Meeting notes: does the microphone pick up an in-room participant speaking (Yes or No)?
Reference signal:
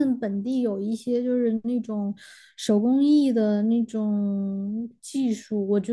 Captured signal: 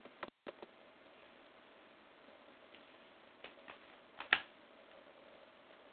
No